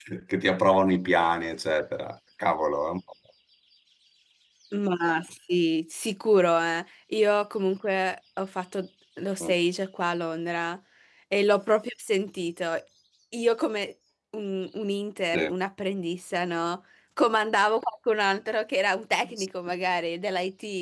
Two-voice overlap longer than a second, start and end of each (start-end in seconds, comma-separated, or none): none